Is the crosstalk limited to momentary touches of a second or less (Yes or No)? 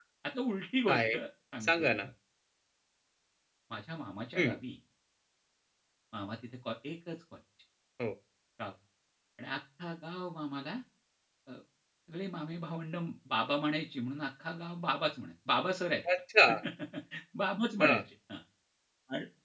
Yes